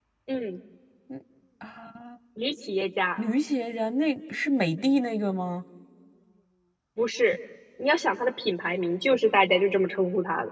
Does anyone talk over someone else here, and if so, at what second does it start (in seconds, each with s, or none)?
none